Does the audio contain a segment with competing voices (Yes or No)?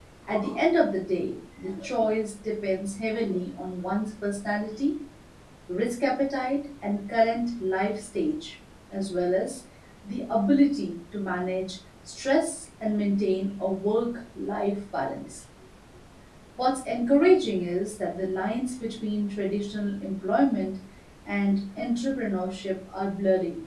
No